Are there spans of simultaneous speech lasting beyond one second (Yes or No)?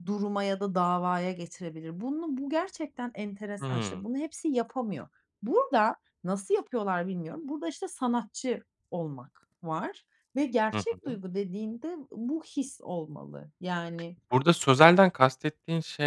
No